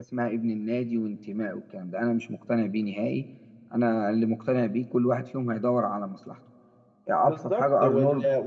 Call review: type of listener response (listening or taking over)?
taking over